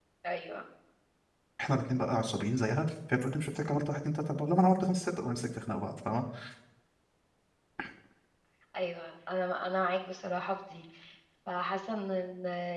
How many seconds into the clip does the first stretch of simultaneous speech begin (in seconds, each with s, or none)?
none